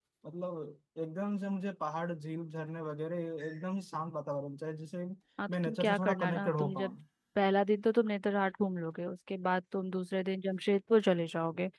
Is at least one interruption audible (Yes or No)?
Yes